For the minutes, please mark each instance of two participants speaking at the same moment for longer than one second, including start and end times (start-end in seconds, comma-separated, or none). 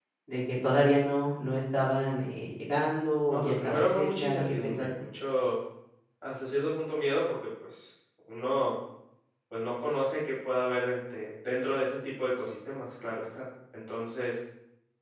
3.3-4.9